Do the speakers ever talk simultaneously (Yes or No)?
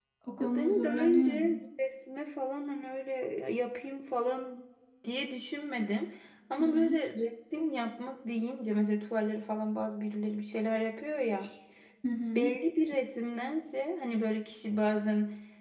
Yes